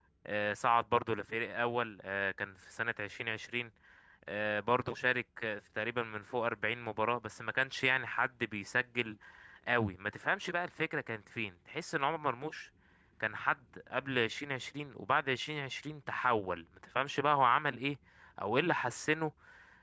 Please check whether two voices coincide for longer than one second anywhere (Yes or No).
No